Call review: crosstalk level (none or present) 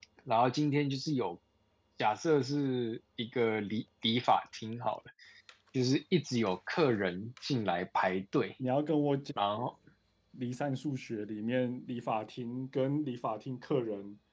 none